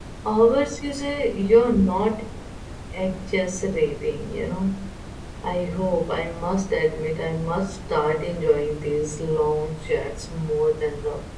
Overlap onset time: none

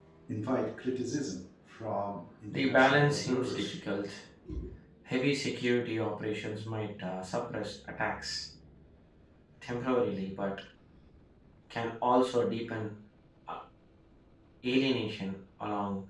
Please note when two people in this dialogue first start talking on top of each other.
2.5 s

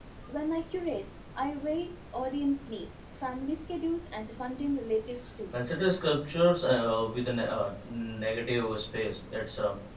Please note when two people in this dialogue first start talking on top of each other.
none

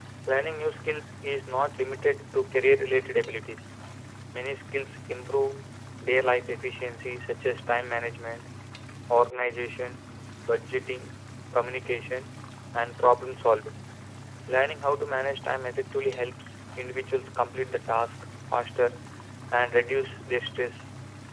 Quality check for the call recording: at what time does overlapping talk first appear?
none

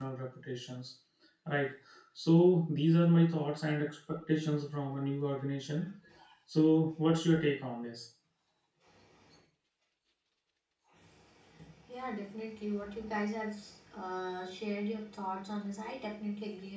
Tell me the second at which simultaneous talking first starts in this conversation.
none

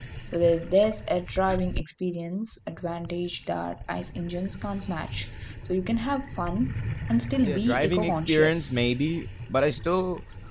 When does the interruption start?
7.4 s

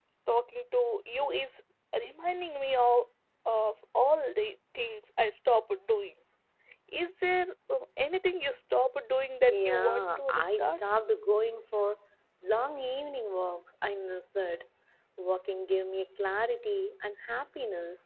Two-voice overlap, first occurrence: 9.5 s

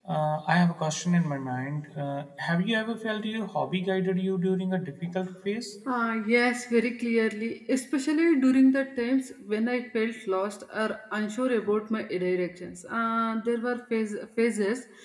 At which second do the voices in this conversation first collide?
none

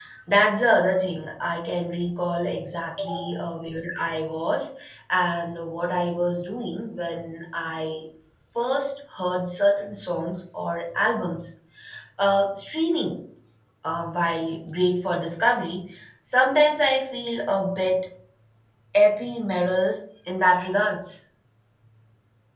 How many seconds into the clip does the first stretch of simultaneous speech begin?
none

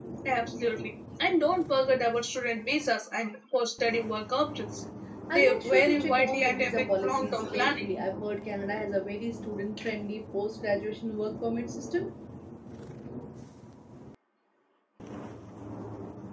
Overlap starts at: 5.3 s

